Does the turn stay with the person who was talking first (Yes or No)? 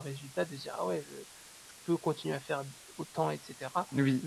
Yes